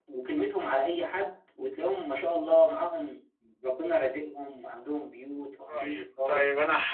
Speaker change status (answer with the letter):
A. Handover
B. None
A